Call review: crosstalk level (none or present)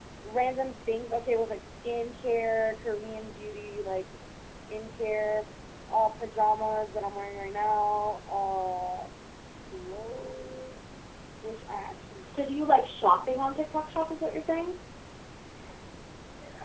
none